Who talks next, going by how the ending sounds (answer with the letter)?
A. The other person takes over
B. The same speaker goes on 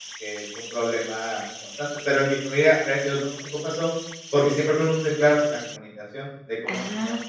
A